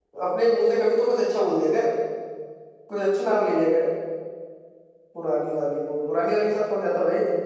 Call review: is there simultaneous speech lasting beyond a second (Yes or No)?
No